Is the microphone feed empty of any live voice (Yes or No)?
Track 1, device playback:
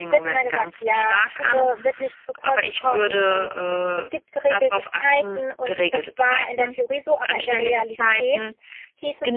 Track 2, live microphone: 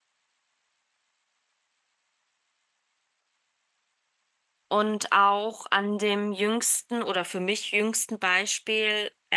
No